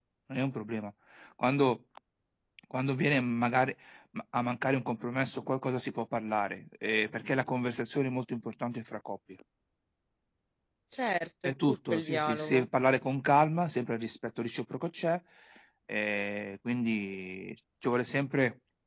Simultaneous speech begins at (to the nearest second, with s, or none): 11 s